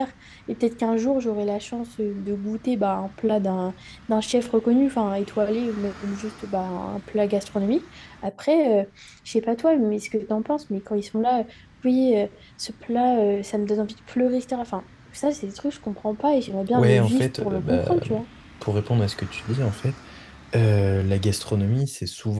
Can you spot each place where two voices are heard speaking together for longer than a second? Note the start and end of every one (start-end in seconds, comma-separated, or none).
16.7-18.0